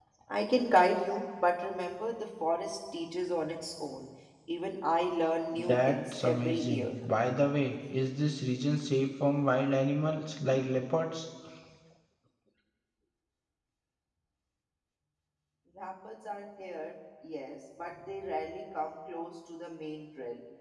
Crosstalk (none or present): present